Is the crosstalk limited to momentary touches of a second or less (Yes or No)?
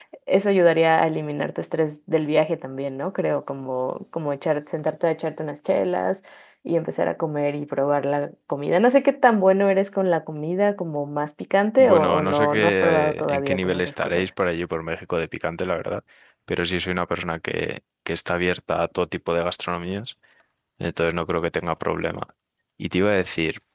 No